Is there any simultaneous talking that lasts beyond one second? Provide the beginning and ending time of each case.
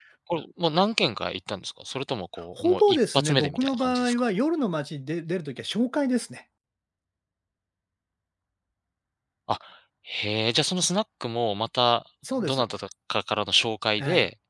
2.6-4.2

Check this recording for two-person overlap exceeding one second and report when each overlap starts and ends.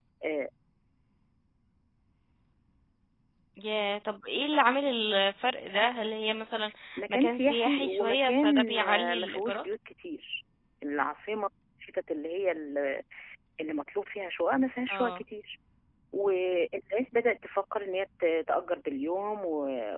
7.1-9.6

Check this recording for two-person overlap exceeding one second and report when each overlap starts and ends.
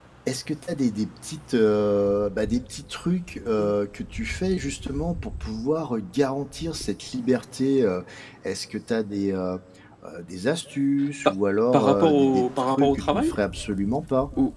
11.7-13.3

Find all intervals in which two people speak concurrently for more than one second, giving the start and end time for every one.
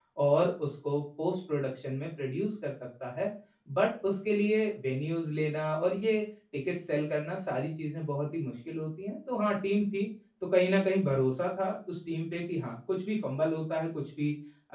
none

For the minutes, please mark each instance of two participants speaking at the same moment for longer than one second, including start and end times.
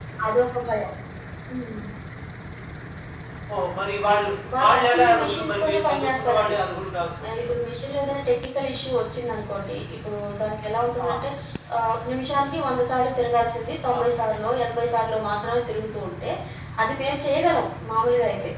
4.6-6.5

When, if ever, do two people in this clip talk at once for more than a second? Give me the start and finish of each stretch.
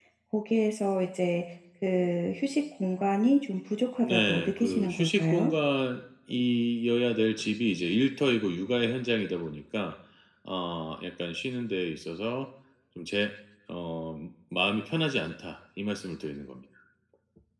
4.0-5.5

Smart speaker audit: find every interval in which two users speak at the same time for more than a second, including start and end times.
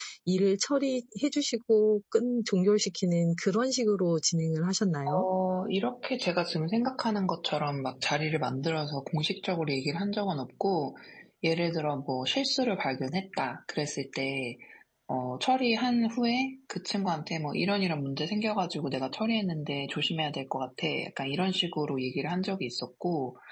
none

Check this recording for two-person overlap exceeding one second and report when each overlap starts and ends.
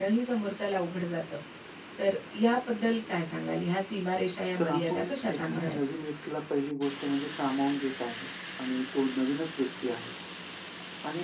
4.6-5.8

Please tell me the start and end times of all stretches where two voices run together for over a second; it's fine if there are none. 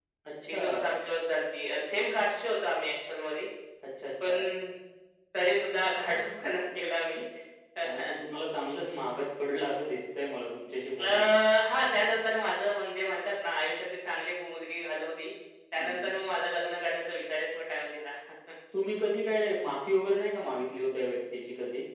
none

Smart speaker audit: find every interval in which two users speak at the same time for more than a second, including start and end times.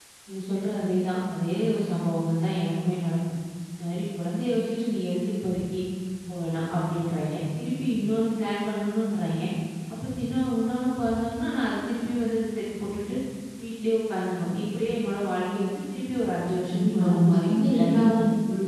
16.7-18.1

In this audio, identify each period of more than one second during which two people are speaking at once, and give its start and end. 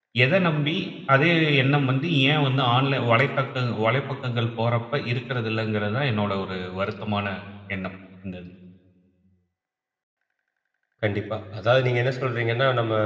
none

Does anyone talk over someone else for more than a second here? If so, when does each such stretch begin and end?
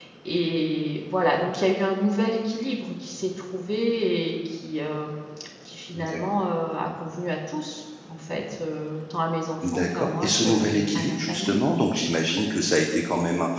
9.6-11.6

